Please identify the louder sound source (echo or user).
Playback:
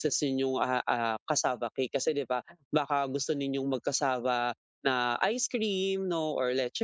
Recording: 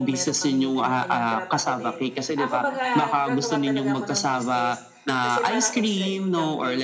echo